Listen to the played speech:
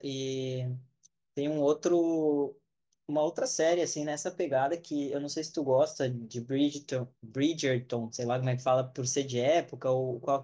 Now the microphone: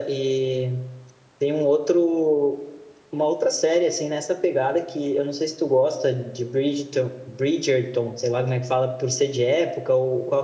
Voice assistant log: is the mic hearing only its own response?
Yes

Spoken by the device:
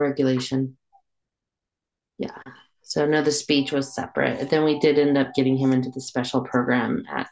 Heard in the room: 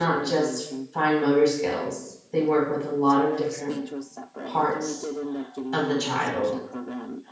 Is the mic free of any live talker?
No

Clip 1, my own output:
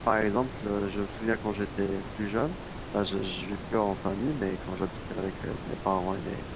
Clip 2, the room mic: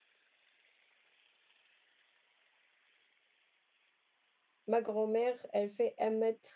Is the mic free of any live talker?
No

